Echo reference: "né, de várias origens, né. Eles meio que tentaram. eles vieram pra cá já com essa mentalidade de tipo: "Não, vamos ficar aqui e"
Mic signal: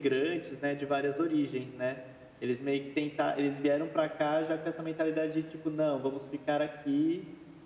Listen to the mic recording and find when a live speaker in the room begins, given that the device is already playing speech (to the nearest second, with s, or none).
none